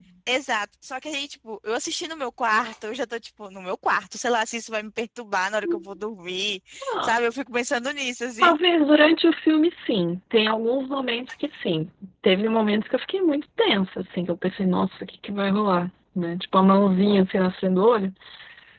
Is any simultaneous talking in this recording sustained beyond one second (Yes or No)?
No